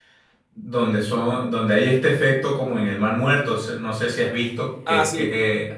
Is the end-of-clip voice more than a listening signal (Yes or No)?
No